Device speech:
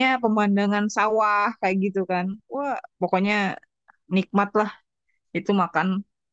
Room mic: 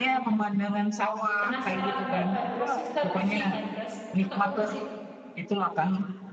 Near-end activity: present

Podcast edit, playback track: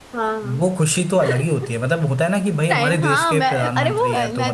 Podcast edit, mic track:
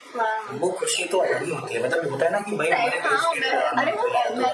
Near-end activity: none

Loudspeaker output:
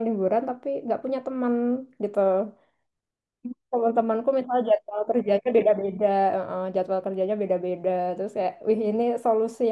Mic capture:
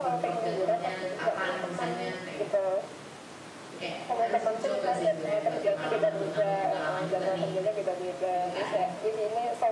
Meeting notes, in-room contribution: present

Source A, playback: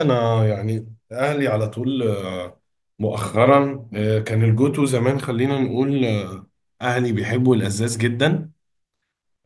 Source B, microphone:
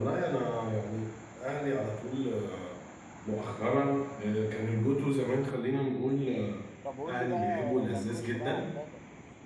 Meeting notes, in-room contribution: present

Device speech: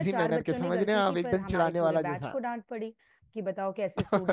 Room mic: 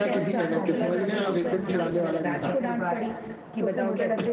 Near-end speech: present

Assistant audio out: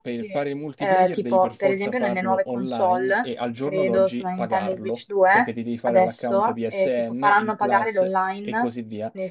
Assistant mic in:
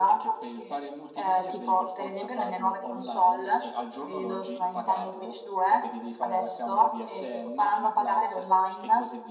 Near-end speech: none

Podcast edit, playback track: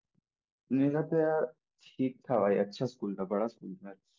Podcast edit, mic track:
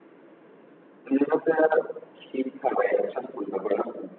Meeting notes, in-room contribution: none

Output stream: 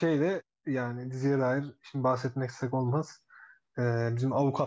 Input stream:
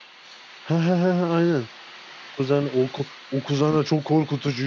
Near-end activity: present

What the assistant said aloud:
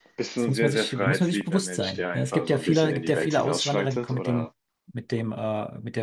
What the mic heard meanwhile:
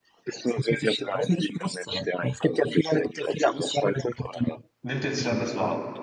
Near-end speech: present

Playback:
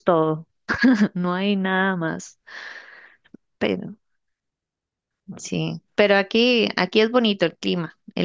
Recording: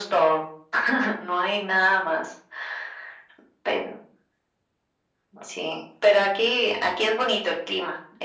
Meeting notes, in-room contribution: none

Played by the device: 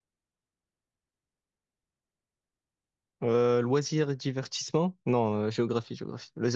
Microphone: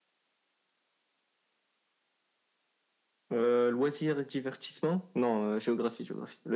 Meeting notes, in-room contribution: none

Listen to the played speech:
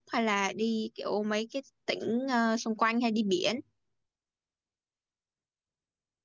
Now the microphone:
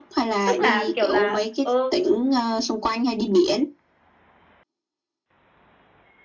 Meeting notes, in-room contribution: present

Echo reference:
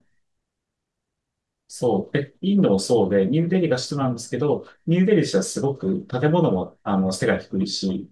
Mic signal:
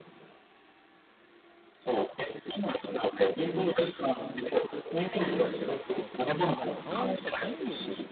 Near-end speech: present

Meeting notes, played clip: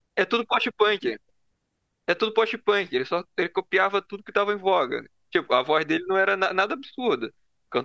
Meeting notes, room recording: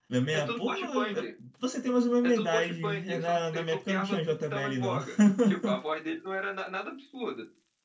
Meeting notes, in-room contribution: present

